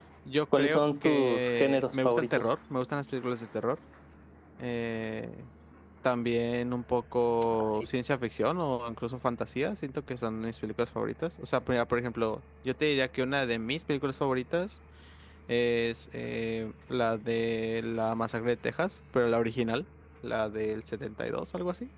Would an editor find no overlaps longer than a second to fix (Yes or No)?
No